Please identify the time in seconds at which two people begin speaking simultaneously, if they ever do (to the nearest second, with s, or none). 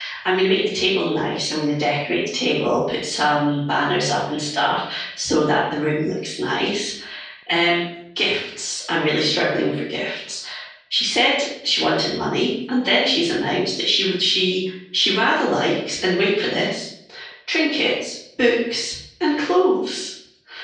none